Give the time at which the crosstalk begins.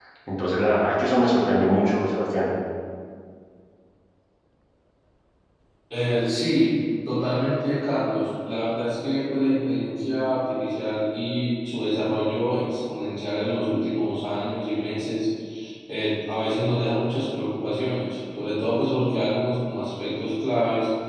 none

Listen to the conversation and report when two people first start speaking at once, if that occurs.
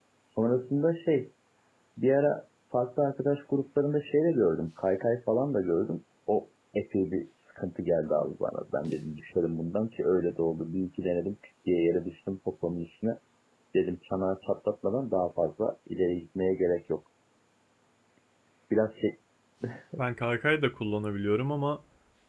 none

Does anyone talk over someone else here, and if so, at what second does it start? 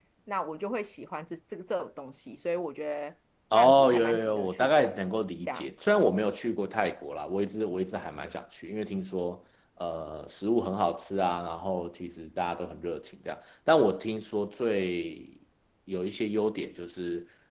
3.5 s

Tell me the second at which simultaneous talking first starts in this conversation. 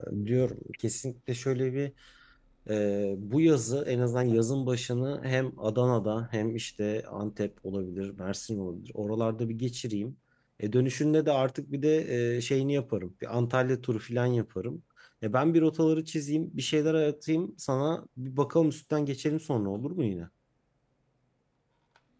none

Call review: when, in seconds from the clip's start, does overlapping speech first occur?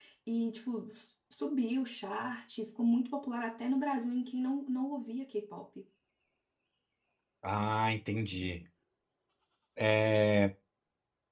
none

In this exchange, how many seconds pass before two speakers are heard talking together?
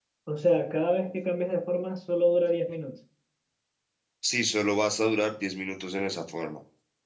none

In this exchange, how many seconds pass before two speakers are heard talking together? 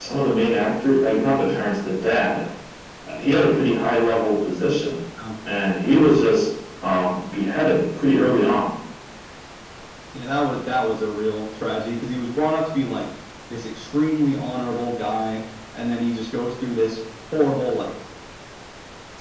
none

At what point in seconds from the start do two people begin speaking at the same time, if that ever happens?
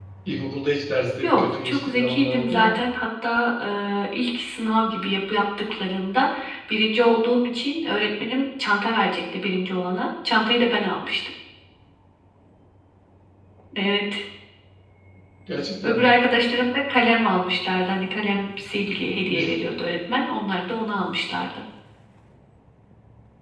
1.2 s

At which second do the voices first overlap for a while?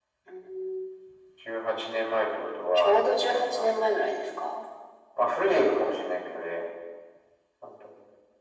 2.7 s

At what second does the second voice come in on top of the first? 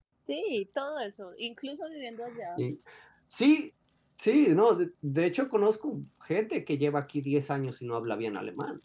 none

